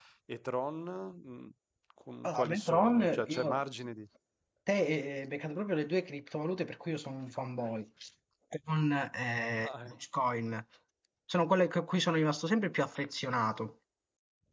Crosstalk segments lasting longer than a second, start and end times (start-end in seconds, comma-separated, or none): 2.2-3.6